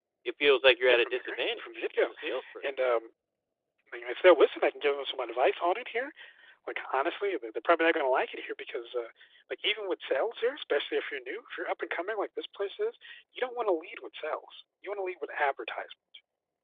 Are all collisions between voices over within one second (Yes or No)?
No